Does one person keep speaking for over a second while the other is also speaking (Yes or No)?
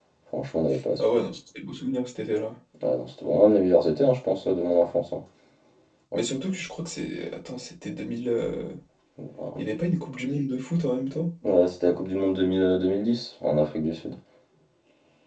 No